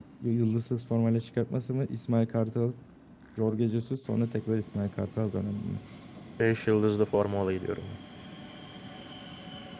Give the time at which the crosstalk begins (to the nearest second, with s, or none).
none